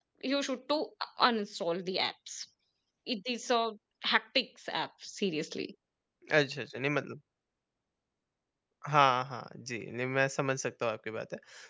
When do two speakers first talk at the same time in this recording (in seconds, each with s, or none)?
none